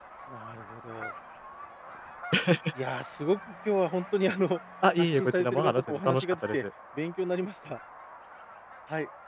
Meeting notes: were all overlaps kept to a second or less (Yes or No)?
No